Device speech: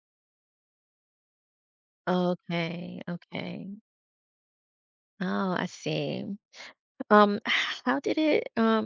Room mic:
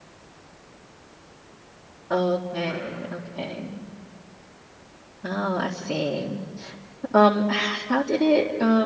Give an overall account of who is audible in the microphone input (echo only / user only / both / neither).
both